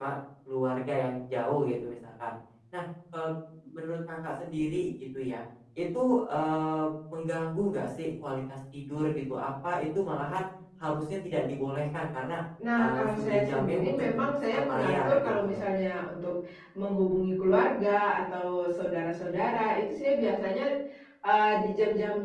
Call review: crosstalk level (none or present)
present